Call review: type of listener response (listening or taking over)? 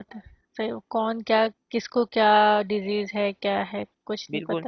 taking over